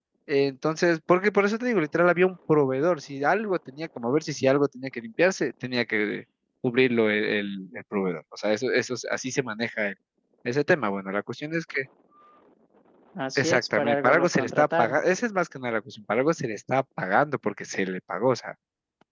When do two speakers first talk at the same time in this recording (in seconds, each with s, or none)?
13.3 s